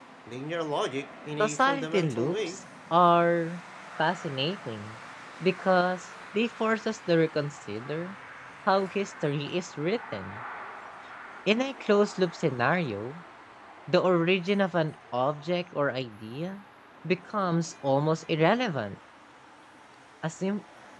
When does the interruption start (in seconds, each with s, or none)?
1.4 s